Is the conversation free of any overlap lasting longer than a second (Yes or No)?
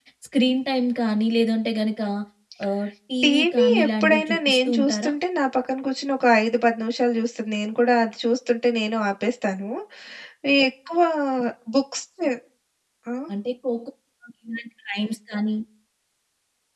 No